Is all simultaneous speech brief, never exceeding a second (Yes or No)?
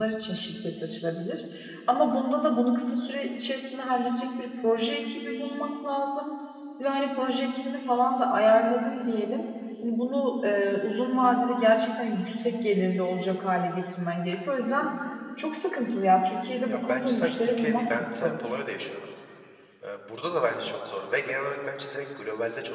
No